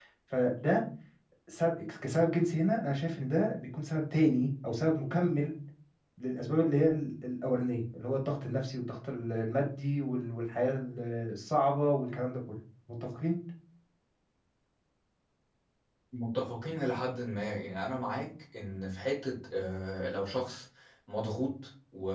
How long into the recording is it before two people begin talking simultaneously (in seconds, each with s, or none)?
none